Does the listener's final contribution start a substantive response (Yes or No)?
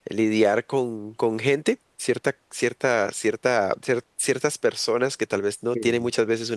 No